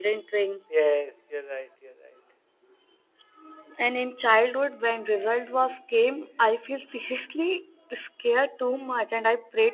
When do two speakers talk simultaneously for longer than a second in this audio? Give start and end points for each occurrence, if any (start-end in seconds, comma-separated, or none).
none